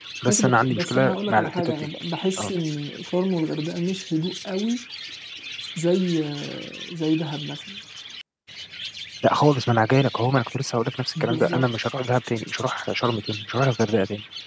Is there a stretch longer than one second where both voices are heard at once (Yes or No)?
Yes